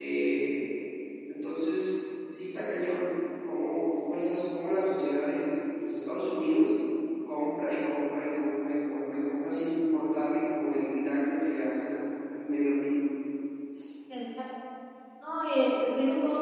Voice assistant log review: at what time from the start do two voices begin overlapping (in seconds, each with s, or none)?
none